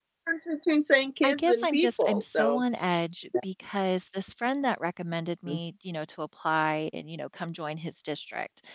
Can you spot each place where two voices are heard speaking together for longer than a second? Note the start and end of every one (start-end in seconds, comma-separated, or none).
1.2-2.6